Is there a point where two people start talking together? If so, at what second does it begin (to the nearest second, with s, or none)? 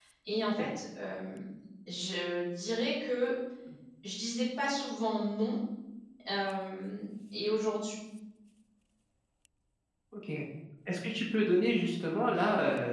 none